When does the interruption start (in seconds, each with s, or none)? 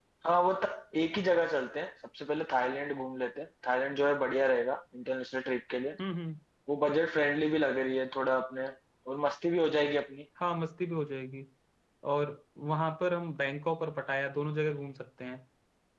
none